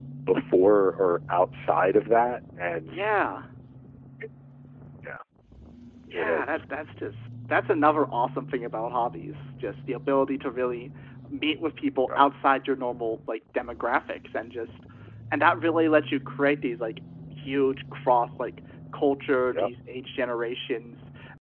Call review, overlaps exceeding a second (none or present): none